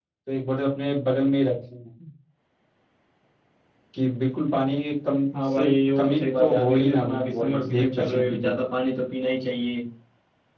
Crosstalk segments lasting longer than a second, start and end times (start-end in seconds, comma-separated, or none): 5.5-8.5